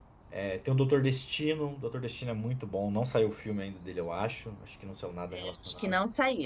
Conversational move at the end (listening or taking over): taking over